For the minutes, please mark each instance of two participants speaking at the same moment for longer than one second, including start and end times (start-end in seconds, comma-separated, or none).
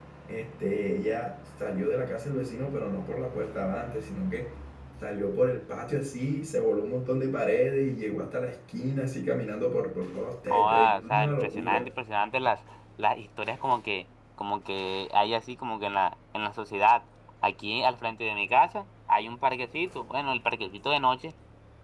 10.5-11.8